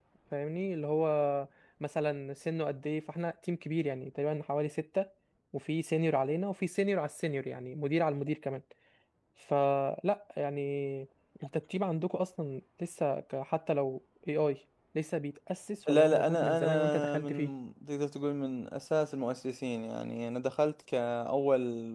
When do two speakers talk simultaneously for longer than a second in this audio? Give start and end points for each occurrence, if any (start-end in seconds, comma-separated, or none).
15.9-17.5